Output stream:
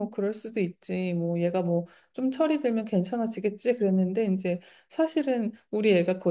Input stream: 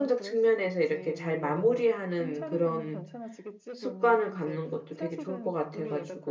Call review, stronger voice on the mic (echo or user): user